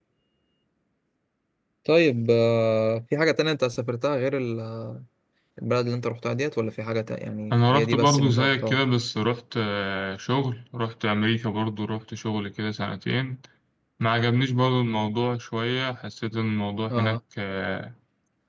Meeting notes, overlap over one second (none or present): present